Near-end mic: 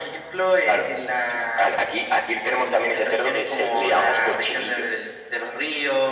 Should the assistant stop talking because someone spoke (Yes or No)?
No